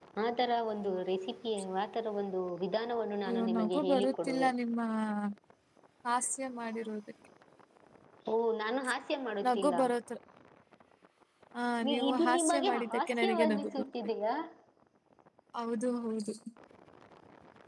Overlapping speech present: Yes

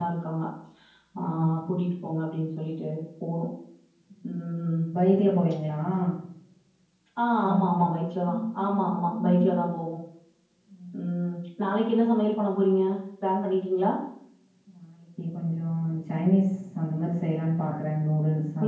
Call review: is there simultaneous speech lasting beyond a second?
No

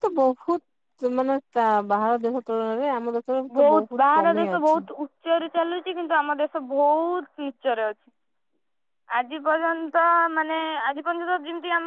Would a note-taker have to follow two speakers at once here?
Yes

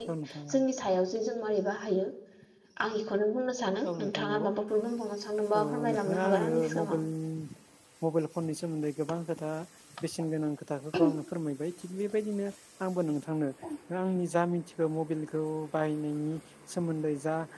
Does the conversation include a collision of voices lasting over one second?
Yes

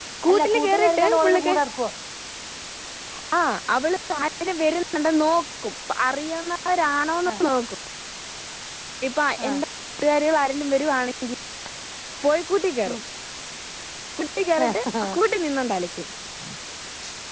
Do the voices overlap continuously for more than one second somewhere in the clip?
Yes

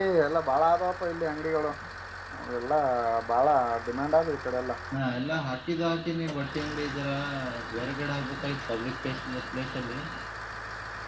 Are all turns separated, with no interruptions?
Yes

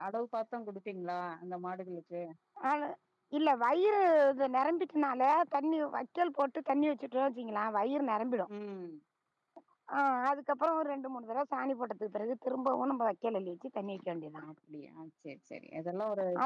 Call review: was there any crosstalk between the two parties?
No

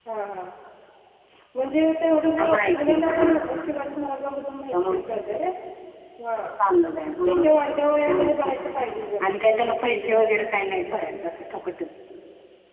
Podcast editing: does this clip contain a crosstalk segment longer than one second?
Yes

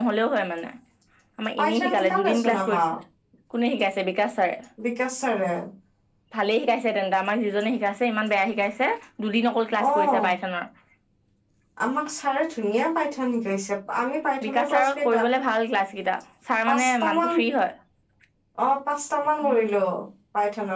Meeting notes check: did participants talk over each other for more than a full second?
Yes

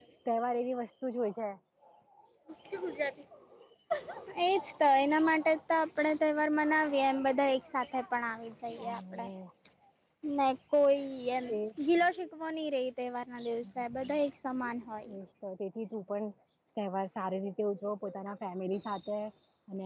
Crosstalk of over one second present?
No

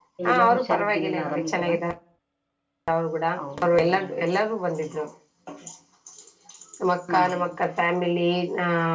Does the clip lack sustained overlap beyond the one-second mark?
No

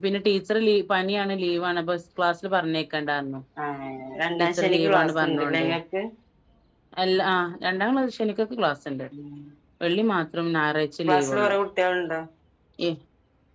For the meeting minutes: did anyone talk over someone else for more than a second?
Yes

